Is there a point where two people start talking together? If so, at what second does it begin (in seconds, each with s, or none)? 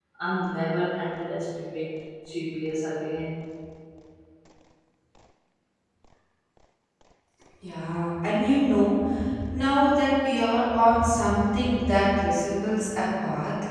none